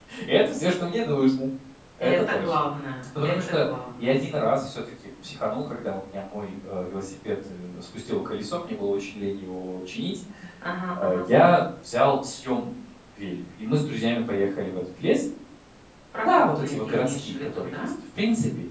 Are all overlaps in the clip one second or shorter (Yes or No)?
No